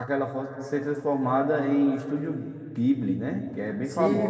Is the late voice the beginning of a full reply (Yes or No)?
Yes